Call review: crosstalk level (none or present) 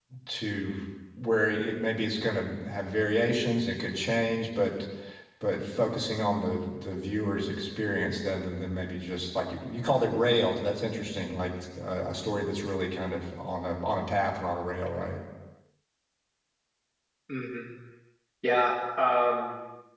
none